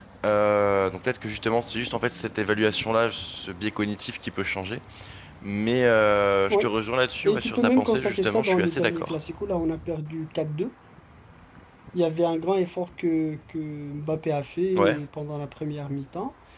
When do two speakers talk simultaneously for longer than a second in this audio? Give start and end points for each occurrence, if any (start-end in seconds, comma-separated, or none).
7.2-9.2